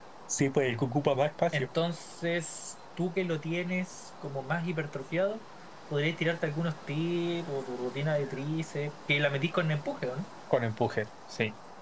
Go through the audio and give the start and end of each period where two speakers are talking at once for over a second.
none

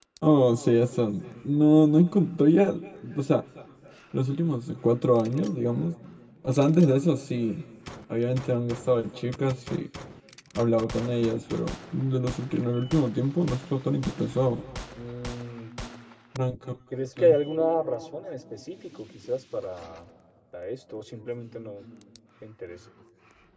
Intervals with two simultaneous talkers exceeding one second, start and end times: none

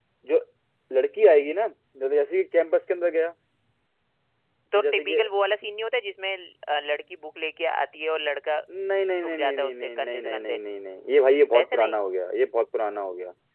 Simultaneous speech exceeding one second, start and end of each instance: 9.2-10.6

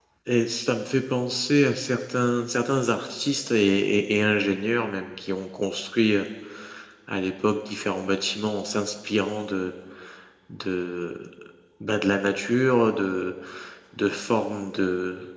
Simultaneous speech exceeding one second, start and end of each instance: none

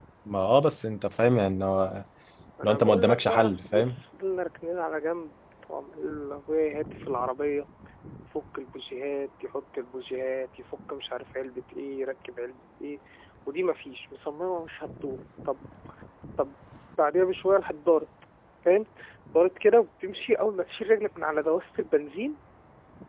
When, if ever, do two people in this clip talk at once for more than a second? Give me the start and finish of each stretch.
2.6-4.0

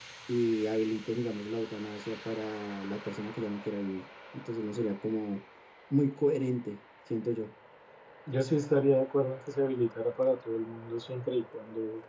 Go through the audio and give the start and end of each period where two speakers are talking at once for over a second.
none

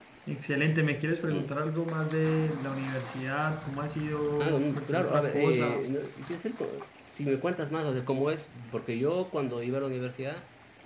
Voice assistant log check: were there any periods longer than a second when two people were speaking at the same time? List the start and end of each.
4.4-5.9

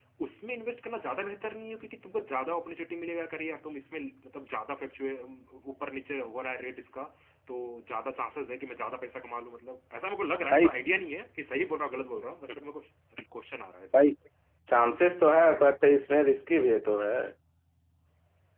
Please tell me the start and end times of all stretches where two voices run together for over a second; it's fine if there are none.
none

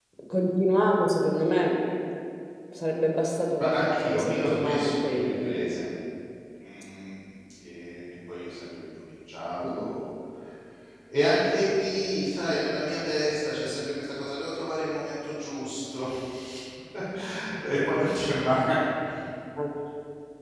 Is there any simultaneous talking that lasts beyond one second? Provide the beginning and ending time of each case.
3.6-5.8

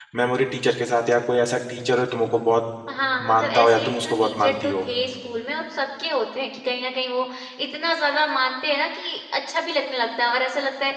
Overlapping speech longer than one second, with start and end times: 3.3-4.8

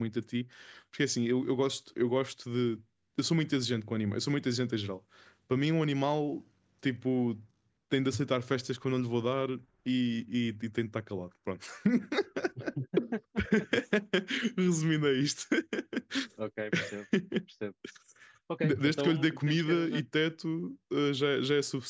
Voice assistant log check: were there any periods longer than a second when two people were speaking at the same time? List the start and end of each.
18.6-20.0

